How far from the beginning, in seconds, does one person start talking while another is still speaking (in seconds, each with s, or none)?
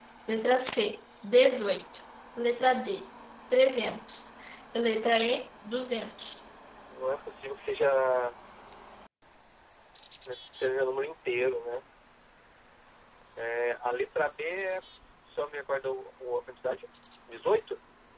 none